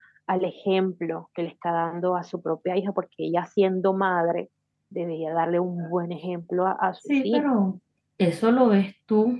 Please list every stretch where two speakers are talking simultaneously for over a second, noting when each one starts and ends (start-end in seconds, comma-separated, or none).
none